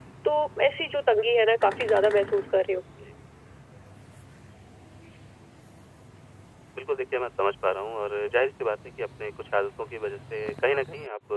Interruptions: none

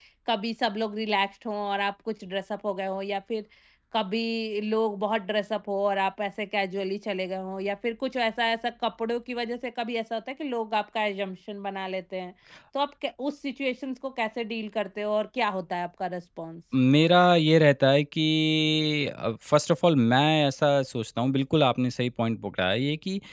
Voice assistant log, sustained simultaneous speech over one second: none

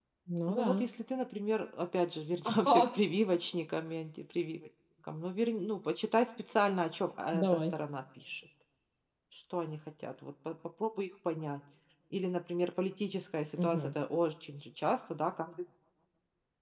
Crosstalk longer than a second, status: none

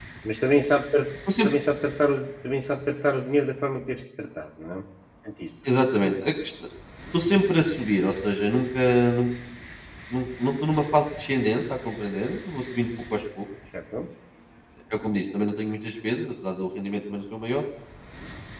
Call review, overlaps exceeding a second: none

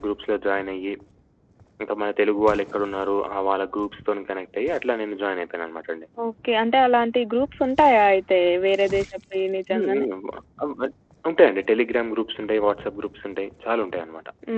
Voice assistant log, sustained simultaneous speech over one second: none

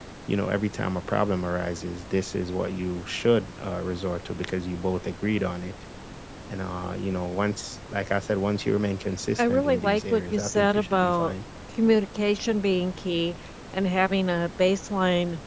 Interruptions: present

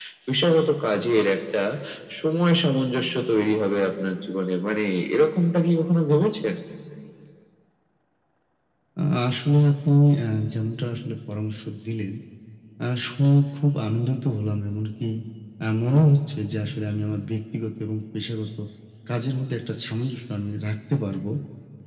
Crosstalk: none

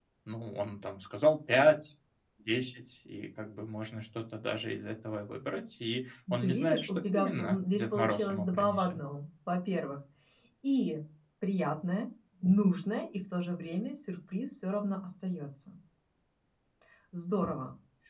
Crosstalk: present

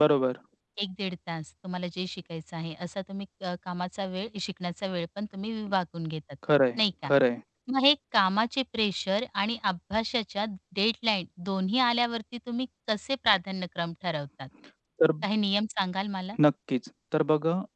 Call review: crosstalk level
none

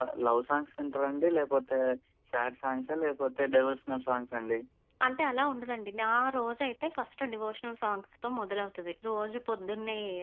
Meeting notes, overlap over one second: none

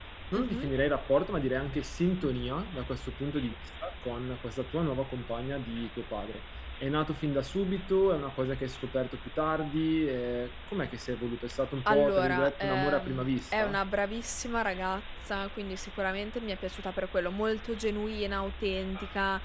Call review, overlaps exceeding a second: present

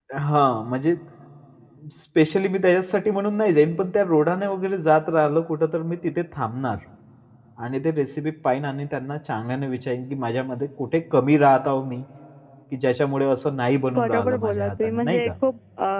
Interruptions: present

